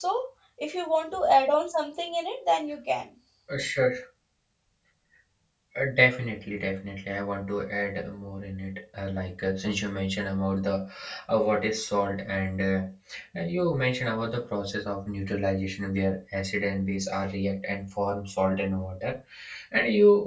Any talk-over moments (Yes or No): No